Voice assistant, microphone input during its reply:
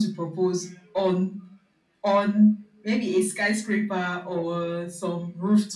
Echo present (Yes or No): Yes